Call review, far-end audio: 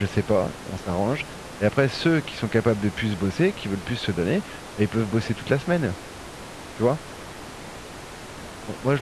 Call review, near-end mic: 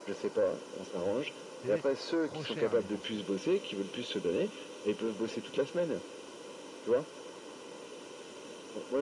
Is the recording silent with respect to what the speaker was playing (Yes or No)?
No